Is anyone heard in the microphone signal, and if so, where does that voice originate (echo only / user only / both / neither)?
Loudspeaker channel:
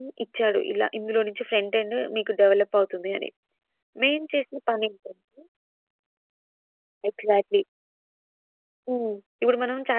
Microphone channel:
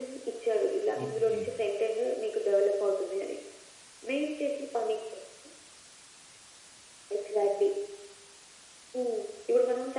both